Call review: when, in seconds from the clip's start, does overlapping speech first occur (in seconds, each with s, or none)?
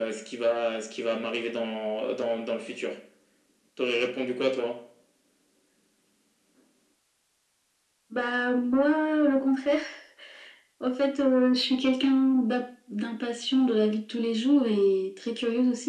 none